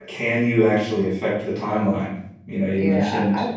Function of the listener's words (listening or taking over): taking over